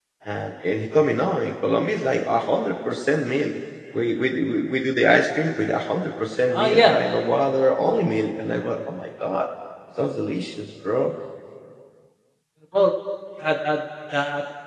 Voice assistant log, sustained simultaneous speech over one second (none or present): none